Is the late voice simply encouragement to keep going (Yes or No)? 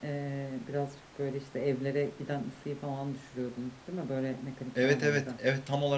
No